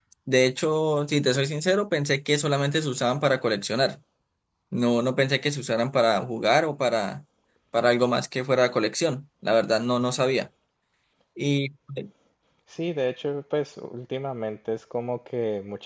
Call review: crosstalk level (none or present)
none